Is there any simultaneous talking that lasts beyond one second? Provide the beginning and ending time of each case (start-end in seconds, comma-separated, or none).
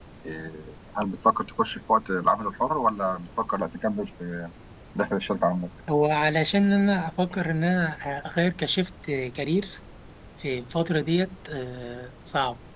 none